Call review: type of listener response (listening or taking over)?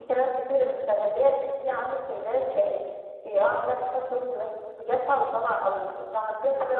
listening